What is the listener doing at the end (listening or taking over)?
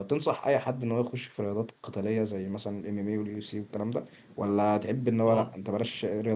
listening